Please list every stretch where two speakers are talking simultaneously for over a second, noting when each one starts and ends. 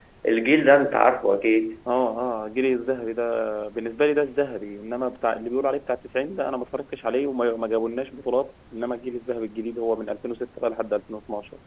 none

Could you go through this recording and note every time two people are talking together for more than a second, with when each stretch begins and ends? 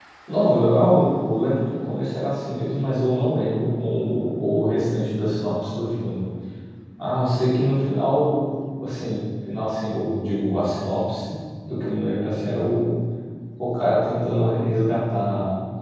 none

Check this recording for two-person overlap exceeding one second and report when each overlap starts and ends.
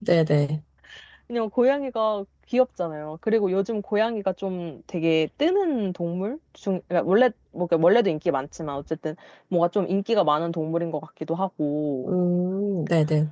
none

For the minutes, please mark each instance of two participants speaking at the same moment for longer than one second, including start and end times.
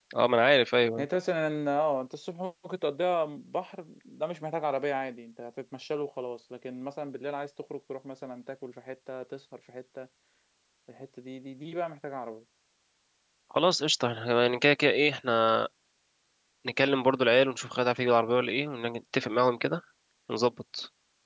none

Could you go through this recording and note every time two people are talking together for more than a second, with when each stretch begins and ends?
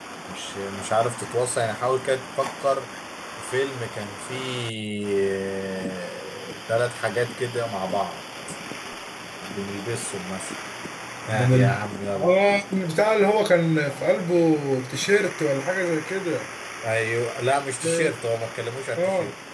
none

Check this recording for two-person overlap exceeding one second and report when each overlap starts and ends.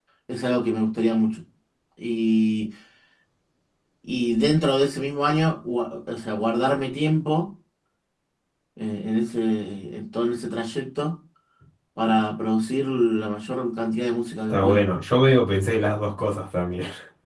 none

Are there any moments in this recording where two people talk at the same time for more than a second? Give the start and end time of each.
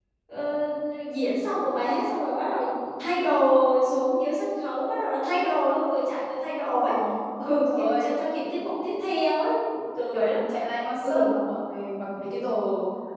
none

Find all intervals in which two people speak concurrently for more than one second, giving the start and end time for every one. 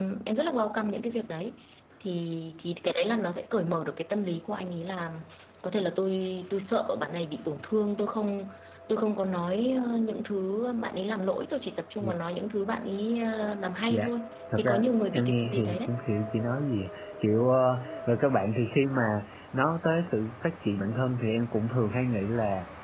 14.6-15.9

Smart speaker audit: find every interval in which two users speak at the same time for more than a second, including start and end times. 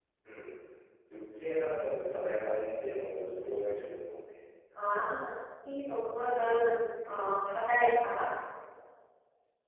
none

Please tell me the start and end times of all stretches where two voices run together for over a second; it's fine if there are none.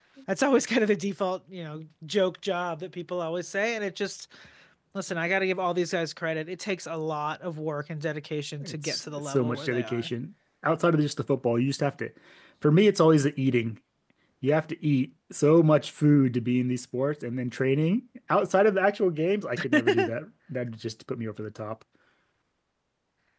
8.6-10.1

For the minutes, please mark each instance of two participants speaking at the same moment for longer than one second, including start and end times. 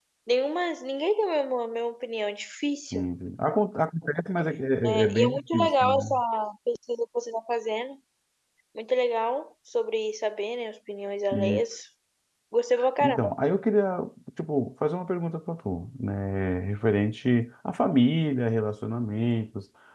4.8-6.1

